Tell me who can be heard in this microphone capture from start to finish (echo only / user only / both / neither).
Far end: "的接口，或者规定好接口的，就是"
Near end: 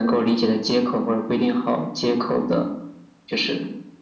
echo only